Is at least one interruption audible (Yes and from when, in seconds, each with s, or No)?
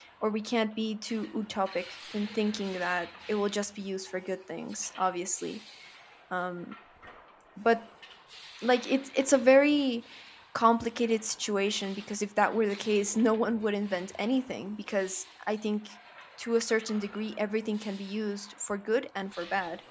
No